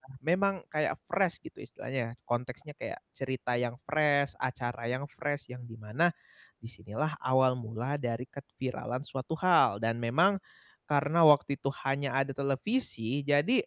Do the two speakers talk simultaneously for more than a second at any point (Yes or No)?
No